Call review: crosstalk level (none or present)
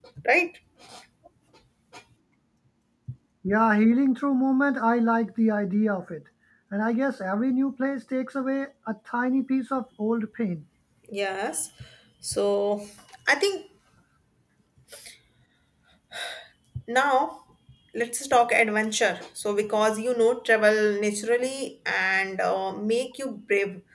none